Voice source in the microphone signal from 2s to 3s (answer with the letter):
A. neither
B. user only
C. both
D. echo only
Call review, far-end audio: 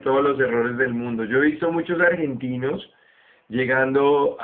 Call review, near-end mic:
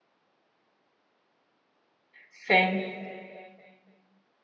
B